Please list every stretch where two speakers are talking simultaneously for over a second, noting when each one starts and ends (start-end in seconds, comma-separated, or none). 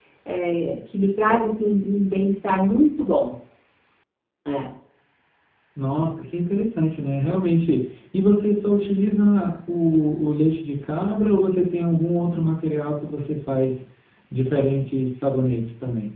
none